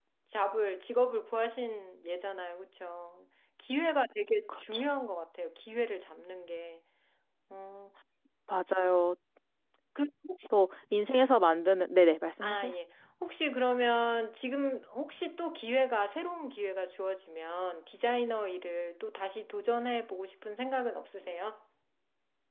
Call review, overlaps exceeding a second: none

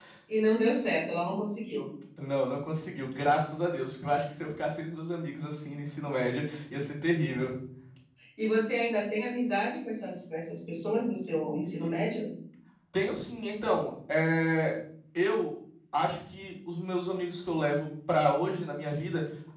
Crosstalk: none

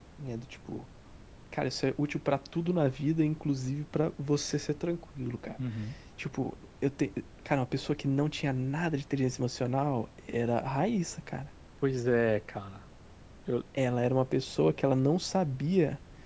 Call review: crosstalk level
none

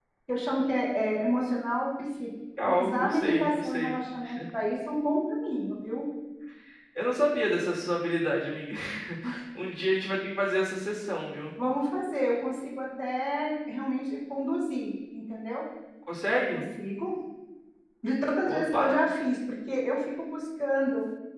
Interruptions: present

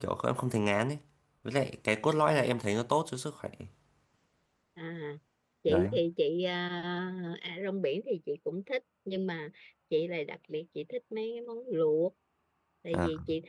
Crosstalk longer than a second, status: none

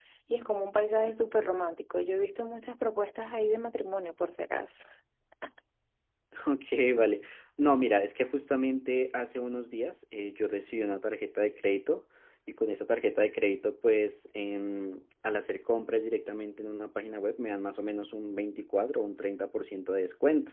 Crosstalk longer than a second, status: none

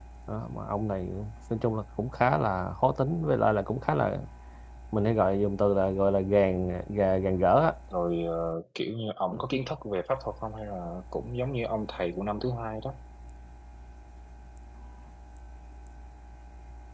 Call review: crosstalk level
none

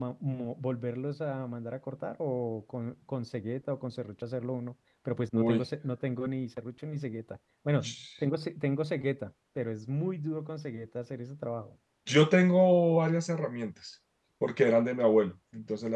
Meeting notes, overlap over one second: none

